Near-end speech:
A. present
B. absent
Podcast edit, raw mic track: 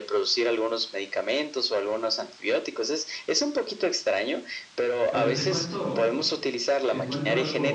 A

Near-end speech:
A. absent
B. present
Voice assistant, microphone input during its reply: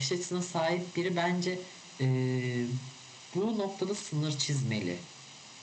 A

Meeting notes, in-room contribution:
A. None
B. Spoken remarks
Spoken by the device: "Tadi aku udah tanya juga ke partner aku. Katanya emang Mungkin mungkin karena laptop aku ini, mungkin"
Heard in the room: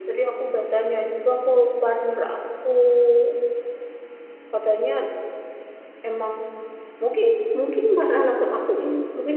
A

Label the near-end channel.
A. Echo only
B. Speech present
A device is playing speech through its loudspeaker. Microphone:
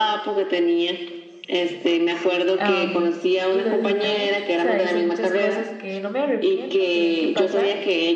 B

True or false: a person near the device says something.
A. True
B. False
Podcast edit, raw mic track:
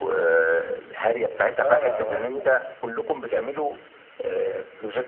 A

